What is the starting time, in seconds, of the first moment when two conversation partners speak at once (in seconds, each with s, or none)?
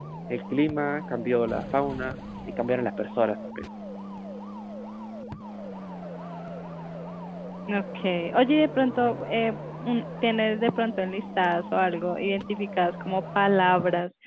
none